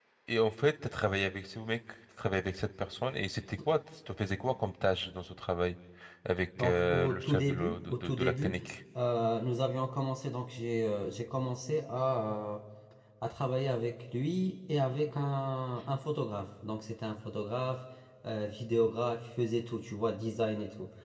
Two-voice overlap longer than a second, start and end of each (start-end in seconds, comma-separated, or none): 6.6-8.6